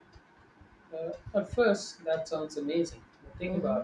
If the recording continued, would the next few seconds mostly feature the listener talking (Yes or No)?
No